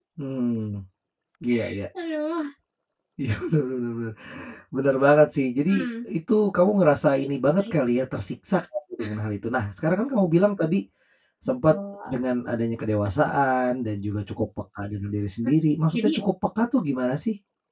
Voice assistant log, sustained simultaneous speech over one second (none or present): none